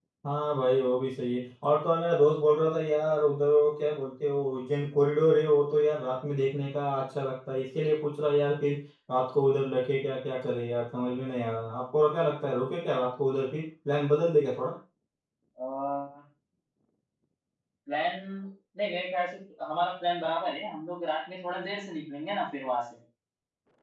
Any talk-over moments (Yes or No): No